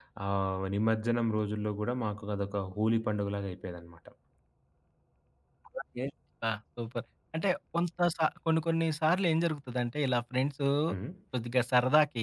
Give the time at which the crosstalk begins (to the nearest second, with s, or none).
none